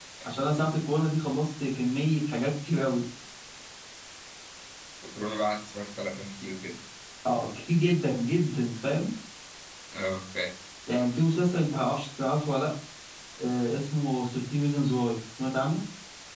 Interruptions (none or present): none